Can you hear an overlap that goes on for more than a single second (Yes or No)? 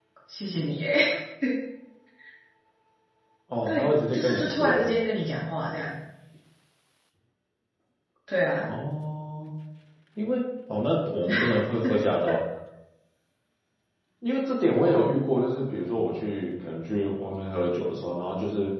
Yes